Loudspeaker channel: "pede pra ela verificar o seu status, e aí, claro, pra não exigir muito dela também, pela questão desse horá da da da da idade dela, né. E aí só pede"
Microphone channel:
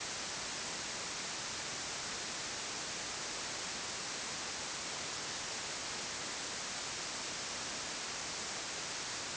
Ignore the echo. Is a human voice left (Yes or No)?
No